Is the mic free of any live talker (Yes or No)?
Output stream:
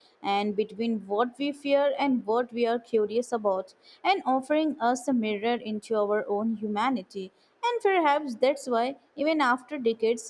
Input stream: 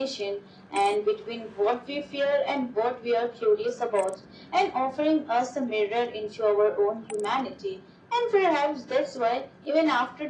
Yes